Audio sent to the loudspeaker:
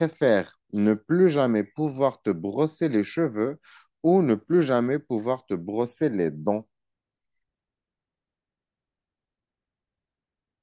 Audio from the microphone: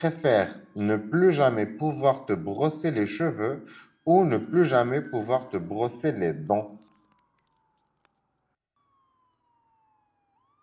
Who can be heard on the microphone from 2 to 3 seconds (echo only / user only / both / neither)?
echo only